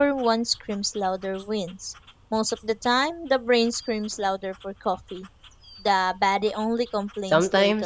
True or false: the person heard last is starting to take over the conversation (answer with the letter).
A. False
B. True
B